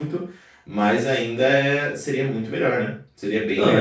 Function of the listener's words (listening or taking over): taking over